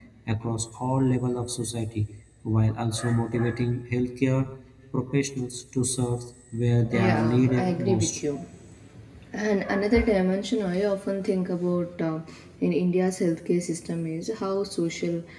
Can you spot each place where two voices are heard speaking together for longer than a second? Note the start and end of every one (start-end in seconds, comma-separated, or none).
6.9-8.2